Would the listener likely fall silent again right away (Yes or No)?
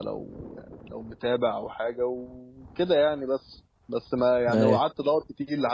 Yes